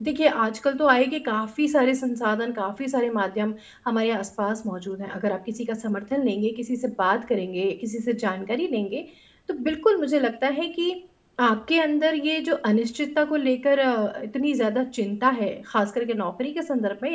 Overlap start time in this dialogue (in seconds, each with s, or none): none